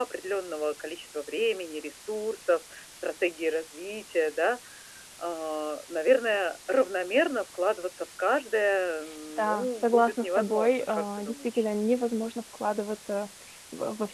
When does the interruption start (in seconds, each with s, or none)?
9.4 s